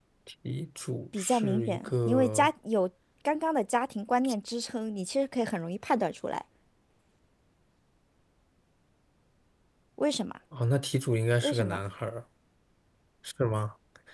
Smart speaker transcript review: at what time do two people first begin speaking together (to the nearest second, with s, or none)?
1 s